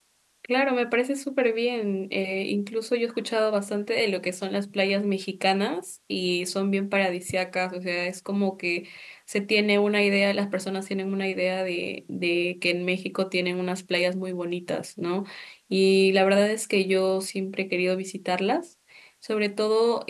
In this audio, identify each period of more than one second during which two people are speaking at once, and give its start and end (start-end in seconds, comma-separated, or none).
none